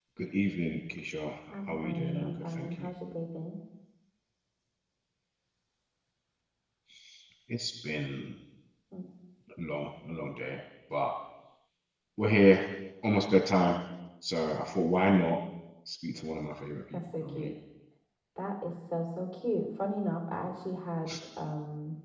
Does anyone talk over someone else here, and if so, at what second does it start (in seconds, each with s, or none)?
1.5 s